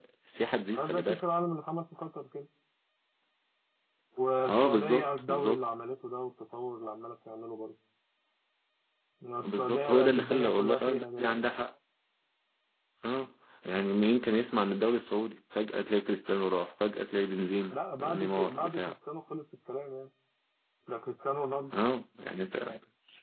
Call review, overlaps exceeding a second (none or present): present